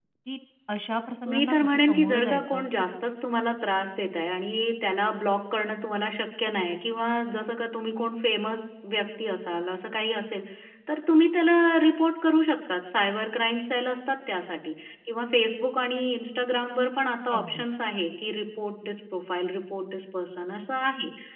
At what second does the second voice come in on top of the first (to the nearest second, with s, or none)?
1 s